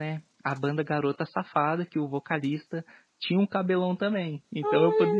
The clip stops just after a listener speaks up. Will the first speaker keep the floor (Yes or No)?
No